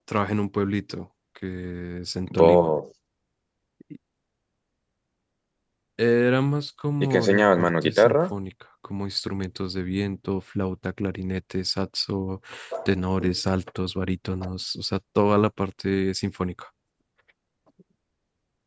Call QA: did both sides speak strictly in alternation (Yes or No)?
No